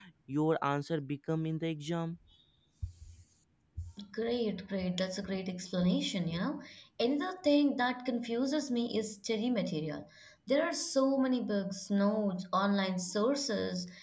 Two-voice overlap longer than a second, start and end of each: none

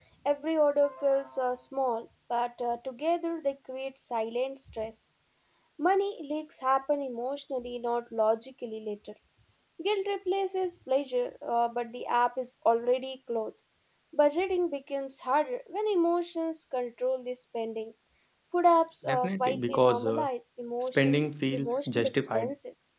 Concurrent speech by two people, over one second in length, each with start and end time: 19.1-20.3, 20.9-22.5

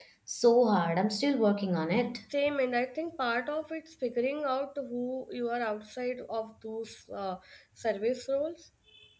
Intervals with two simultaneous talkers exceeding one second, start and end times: none

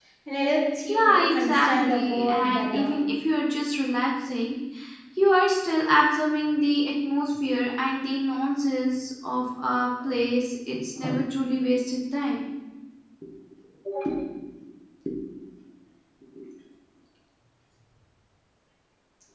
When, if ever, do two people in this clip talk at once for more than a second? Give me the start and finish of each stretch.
0.9-2.9

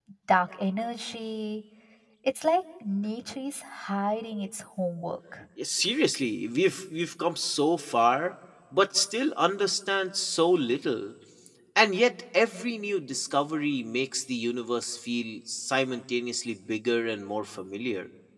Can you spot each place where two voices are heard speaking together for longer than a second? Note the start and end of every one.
none

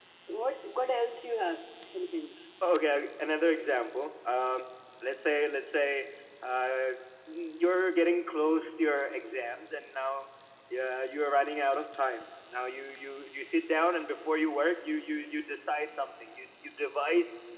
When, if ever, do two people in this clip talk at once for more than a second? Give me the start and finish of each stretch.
none

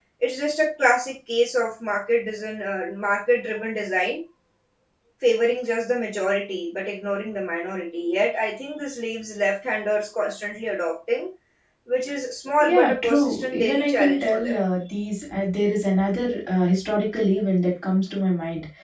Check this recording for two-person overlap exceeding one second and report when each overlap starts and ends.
12.6-14.6

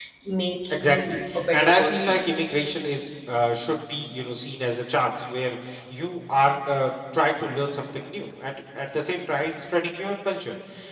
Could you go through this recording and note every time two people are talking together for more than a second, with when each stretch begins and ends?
0.7-2.2

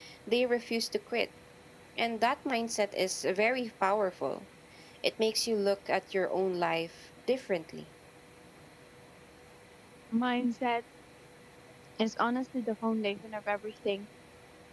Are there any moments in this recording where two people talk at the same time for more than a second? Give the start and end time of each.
none

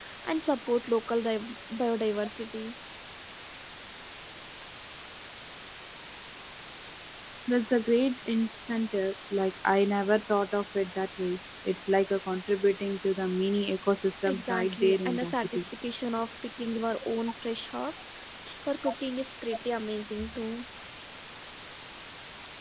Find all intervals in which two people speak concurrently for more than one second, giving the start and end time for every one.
14.2-15.6

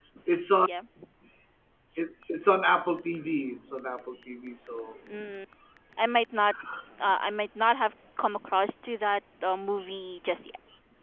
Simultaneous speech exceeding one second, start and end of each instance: none

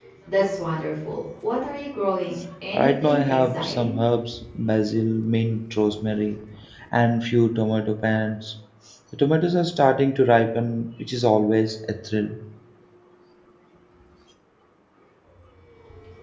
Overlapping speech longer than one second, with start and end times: 2.7-4.0

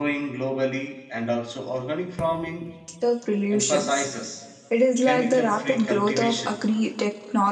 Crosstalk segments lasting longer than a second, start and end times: 5.0-6.5

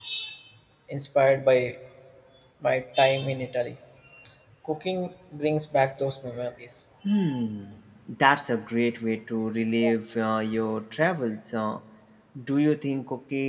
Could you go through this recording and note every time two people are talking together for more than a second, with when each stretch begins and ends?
none

